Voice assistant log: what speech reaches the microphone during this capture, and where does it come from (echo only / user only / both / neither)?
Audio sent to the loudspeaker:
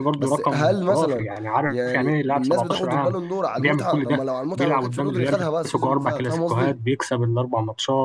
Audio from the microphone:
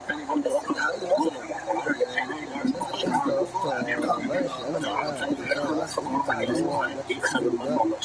both